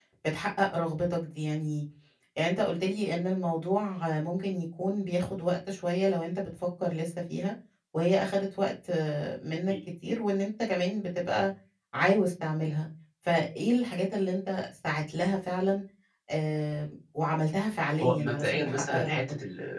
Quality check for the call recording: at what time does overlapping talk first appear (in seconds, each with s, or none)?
17.8 s